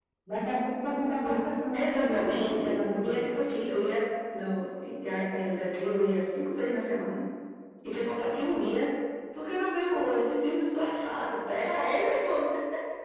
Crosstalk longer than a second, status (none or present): present